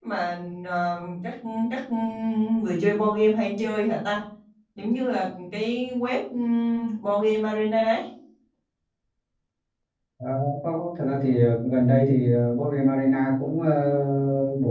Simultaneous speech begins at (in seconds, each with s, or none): none